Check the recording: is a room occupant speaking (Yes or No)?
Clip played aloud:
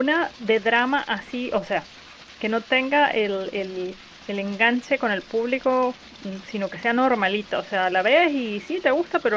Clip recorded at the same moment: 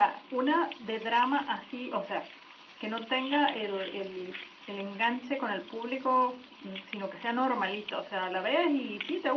No